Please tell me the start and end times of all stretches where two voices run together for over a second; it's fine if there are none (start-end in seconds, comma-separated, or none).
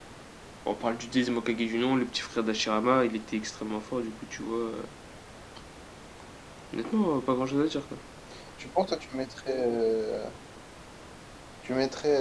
none